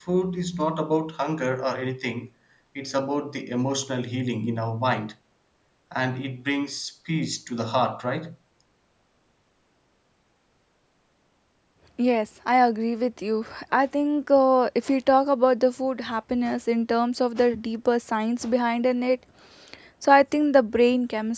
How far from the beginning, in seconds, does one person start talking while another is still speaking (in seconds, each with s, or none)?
none